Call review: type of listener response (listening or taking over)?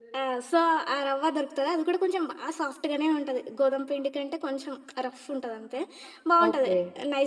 listening